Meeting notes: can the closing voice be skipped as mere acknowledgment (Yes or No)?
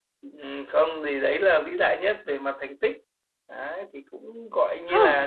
Yes